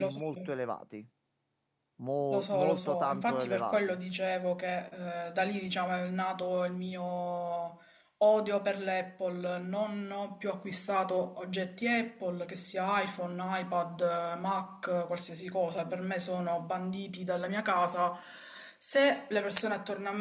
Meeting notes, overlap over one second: present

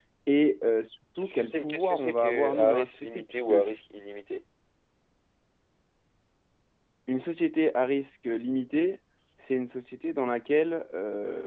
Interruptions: present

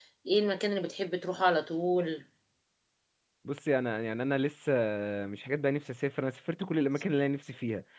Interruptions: none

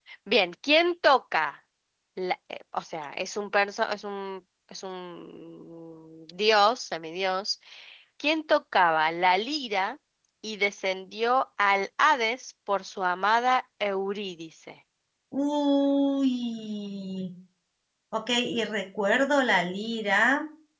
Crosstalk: none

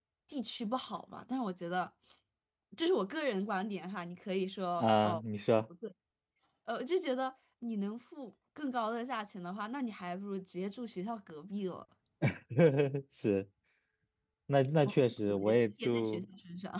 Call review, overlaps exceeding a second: present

